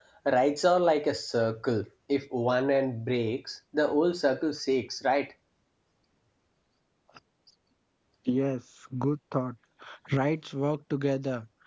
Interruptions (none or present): none